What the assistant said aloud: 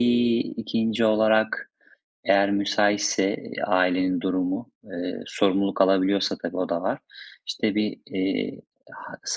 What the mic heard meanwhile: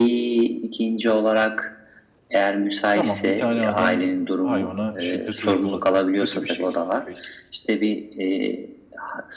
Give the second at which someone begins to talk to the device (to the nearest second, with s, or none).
3 s